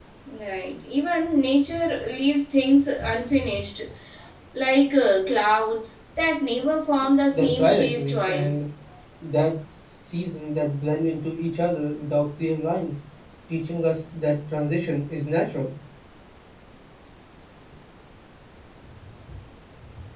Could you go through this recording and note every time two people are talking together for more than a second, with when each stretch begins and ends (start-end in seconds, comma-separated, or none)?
7.3-8.6